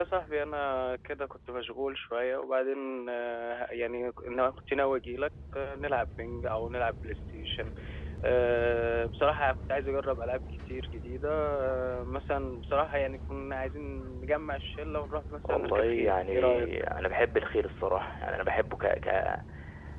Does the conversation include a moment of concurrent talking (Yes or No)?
Yes